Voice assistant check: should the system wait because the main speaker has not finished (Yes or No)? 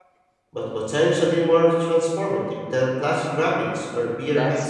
No